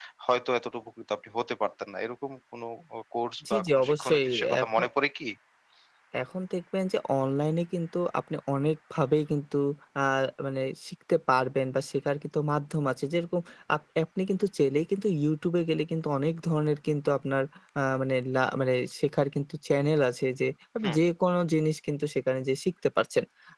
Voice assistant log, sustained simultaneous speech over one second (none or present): present